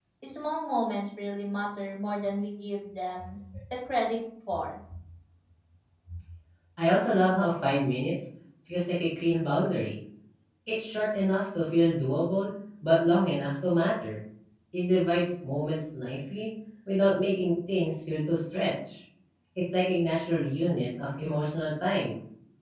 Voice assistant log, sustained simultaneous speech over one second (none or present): none